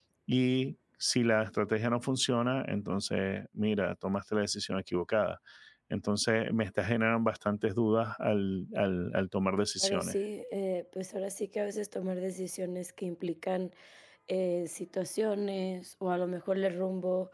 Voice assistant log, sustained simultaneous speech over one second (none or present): none